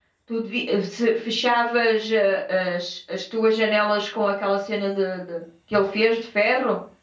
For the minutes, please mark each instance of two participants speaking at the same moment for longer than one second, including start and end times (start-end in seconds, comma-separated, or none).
none